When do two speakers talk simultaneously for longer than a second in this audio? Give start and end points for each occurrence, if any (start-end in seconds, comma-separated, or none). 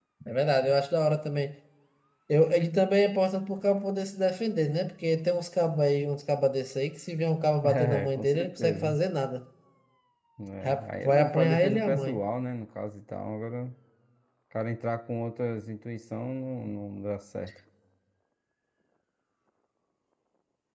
7.7-8.9, 10.6-12.2